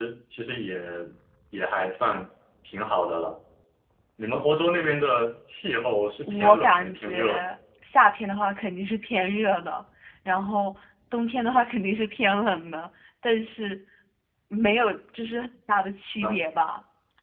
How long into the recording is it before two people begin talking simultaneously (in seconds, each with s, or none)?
6.3 s